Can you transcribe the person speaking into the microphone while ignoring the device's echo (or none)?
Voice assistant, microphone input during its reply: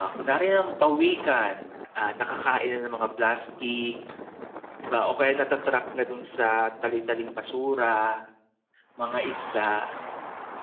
none